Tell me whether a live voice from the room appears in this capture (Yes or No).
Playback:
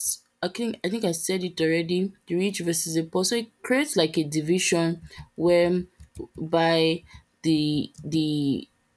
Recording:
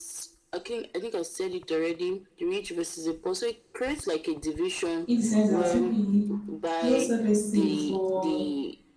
Yes